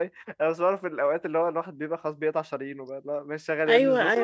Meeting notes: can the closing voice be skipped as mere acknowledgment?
No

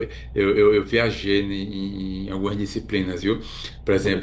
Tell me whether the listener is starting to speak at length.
No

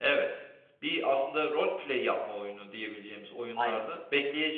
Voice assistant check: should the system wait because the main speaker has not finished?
Yes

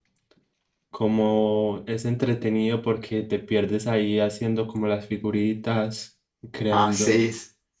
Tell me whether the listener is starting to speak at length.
Yes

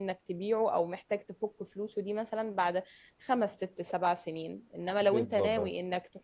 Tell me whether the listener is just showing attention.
Yes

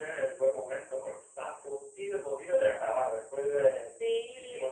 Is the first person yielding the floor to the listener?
Yes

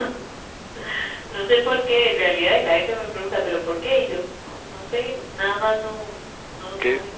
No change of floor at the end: No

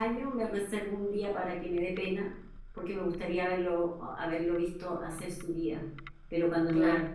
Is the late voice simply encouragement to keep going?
Yes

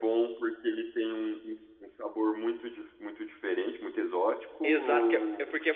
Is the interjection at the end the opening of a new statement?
Yes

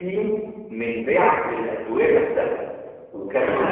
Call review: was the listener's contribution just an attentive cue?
Yes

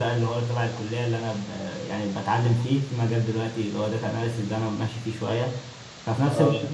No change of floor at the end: Yes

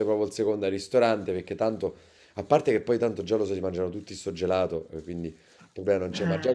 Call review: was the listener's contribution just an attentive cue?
Yes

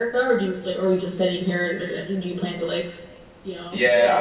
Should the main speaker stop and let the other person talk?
Yes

